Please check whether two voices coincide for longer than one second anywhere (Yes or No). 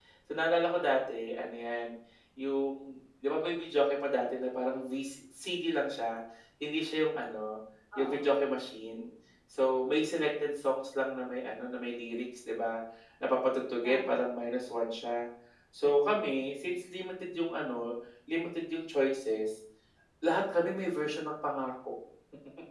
No